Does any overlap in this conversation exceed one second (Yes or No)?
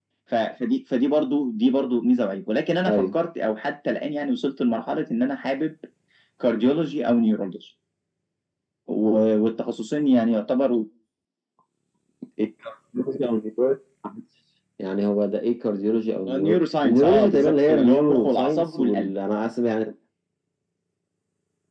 Yes